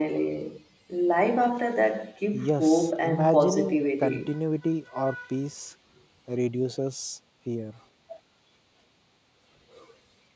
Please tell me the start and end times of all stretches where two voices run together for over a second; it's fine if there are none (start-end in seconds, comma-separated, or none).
2.5-4.3